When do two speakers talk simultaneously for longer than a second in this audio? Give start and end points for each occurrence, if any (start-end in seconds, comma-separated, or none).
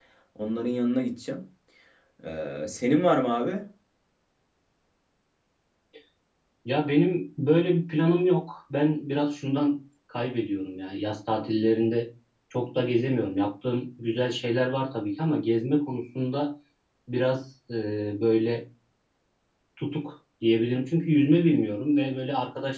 none